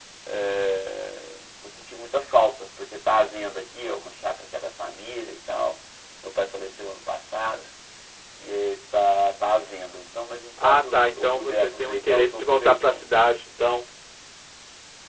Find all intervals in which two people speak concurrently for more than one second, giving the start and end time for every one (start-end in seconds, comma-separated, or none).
10.6-13.1